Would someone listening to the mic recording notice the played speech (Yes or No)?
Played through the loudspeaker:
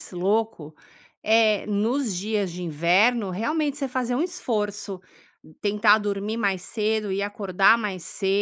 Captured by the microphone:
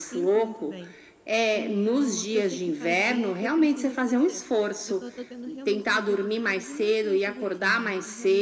Yes